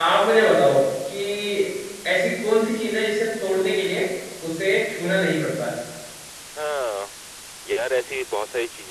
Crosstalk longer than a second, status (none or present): none